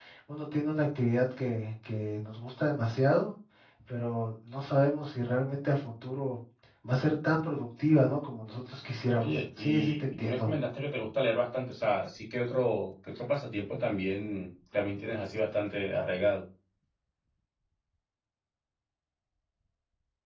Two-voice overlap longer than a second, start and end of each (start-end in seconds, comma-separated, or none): 9.1-10.5